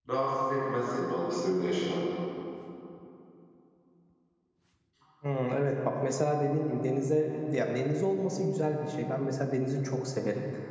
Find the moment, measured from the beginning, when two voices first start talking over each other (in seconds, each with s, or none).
none